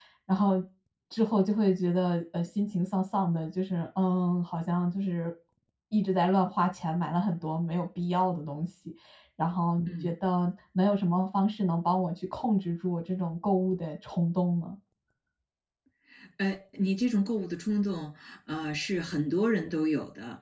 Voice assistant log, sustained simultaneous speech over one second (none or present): none